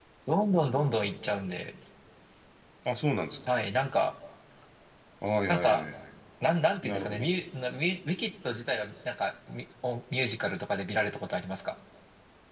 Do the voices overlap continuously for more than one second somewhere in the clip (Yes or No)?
No